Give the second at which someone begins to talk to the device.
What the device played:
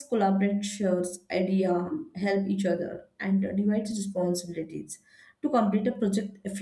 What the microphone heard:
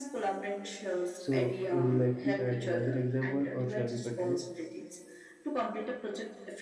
1.1 s

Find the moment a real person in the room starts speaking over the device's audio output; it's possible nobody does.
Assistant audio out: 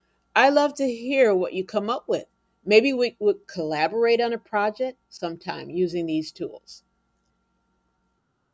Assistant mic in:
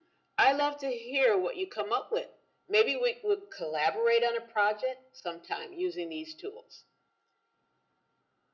none

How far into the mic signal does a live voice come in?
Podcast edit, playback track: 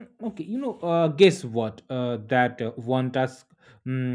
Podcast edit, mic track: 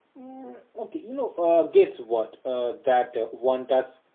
none

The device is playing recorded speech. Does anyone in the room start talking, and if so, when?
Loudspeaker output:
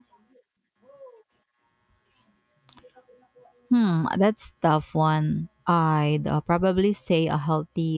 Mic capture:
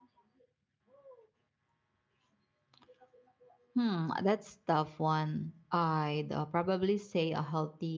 none

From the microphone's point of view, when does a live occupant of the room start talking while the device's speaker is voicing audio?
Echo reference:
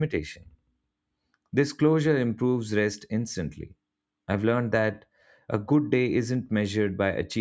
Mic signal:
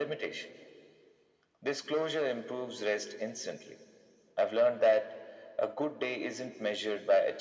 none

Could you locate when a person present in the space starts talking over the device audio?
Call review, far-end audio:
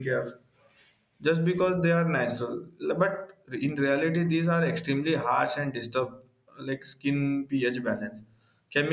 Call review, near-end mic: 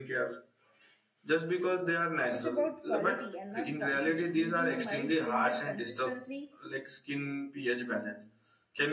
2.3 s

